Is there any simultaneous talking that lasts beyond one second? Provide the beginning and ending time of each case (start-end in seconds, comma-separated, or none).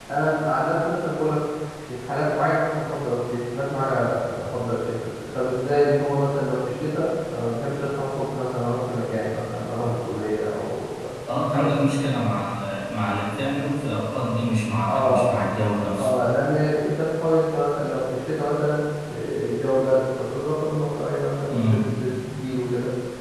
none